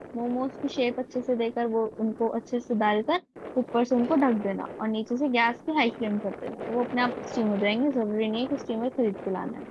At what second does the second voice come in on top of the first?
none

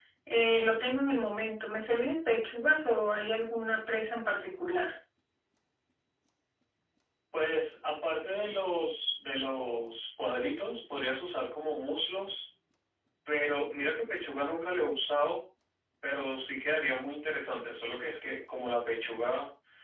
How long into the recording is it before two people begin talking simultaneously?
none

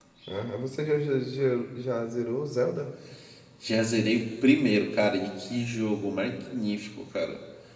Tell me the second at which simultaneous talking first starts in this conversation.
none

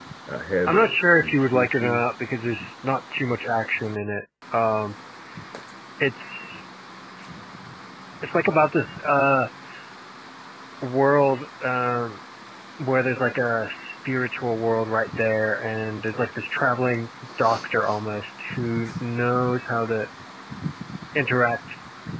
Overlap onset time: 0.7 s

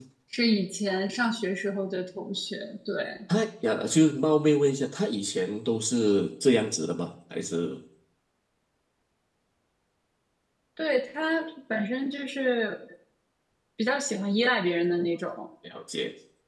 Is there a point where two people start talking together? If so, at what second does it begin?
none

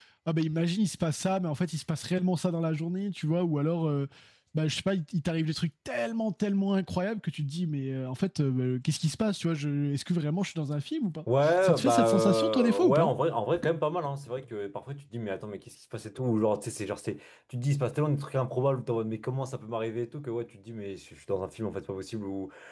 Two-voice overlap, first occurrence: 11.3 s

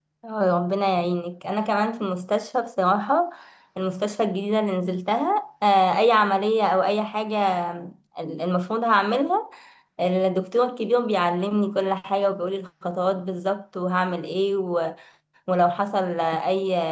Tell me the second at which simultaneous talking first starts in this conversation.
none

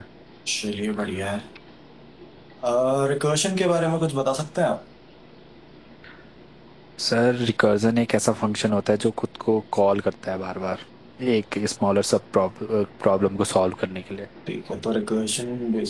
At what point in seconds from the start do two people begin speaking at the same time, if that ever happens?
none

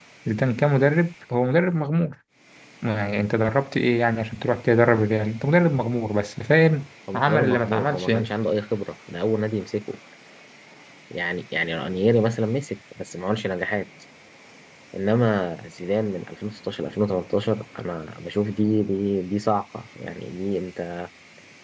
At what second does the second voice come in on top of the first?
7.1 s

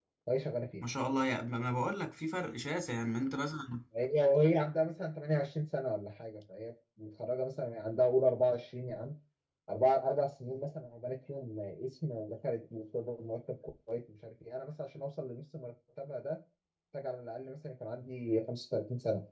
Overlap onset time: none

